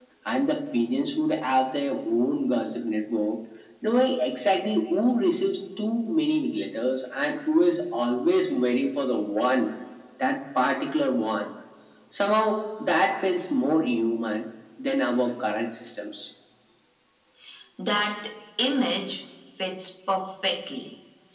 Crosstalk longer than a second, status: none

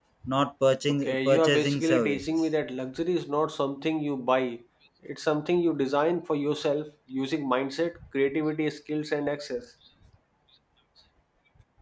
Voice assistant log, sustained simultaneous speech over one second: present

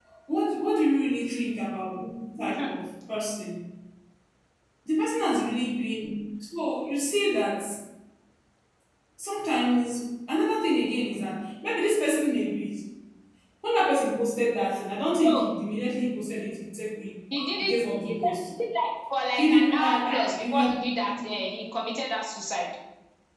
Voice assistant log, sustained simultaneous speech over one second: present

